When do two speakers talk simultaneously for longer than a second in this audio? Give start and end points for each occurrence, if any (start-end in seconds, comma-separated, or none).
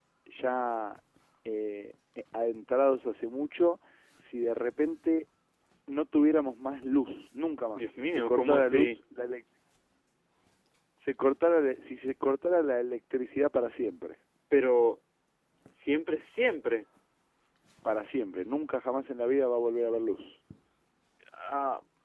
7.8-9.0